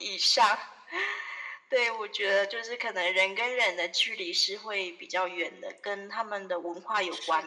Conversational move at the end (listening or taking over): taking over